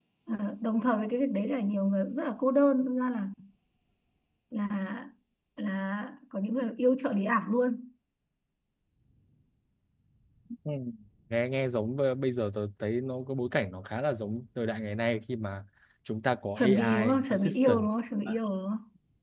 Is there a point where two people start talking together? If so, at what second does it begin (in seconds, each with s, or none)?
16.6 s